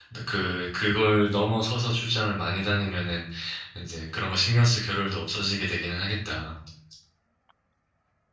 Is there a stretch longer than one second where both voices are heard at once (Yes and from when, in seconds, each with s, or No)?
No